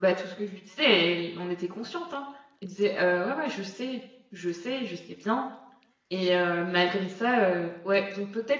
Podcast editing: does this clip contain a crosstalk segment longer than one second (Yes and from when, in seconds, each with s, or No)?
No